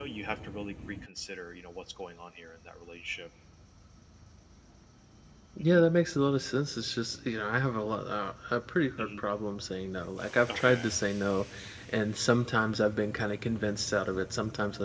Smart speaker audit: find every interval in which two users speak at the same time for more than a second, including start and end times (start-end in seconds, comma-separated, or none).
none